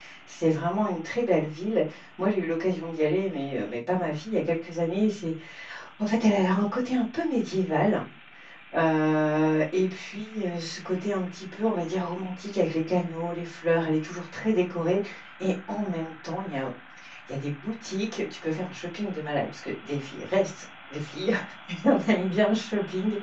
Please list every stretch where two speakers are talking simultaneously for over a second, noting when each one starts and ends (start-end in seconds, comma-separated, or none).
none